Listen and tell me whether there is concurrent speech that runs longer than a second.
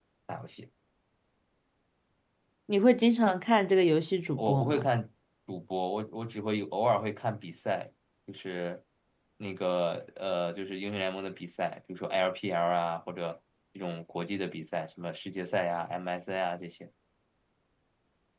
No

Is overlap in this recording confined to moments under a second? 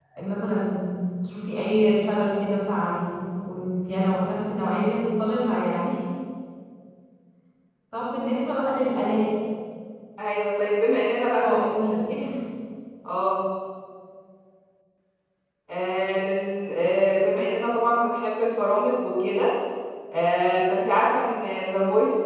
Yes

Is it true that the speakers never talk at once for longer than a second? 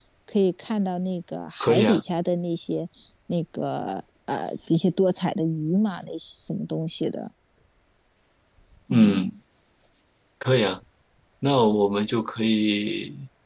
Yes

